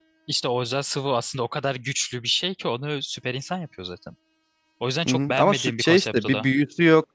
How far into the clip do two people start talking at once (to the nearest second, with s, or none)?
5 s